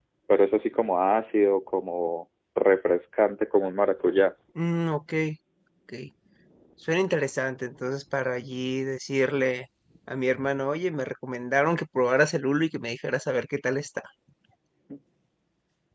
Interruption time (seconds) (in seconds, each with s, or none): none